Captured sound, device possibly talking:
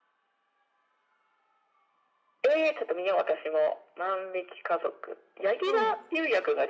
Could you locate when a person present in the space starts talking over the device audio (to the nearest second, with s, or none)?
6 s